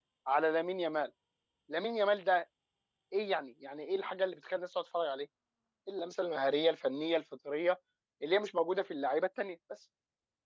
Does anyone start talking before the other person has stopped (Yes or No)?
No